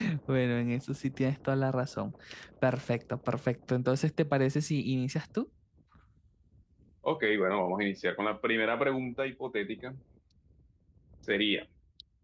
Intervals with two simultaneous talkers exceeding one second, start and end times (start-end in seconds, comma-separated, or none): none